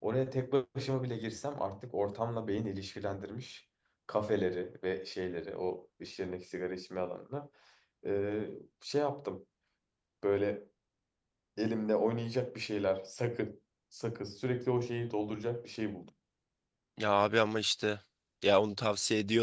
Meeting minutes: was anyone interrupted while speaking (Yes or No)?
No